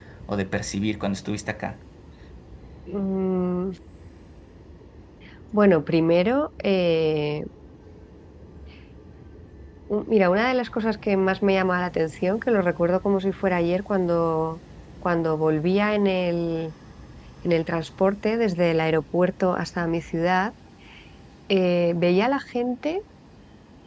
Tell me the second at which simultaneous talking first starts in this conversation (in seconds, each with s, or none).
none